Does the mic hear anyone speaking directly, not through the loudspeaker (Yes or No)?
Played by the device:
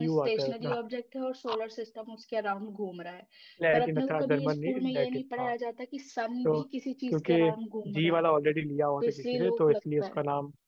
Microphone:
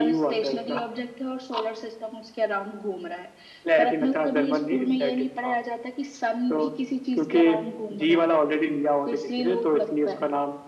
No